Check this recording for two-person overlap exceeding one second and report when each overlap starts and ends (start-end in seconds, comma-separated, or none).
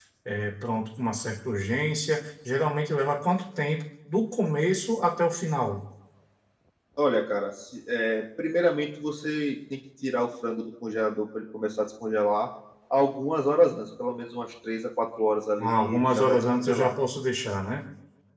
15.6-16.9